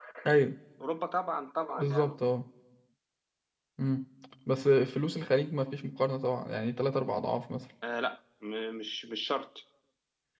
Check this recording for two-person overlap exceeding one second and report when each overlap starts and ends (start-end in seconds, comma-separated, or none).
none